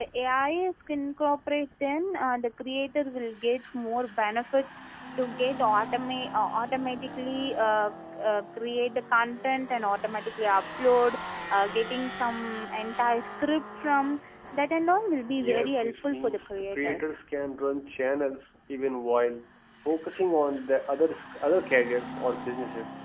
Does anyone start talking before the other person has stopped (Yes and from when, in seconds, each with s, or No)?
Yes, from 15.4 s